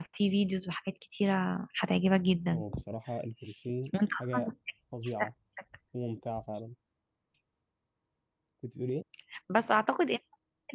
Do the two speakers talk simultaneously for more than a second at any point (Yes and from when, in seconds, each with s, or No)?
No